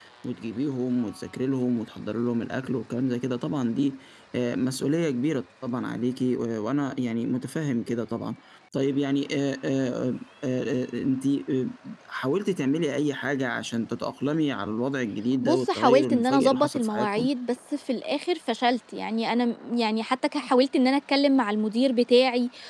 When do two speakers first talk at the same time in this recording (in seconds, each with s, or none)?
15.4 s